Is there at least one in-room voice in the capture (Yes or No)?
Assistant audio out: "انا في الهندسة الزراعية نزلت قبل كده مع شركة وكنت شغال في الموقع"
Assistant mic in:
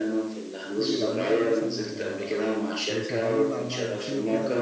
Yes